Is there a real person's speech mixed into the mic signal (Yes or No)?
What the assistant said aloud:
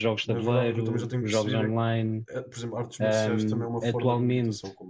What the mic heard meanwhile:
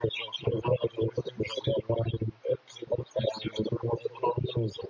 No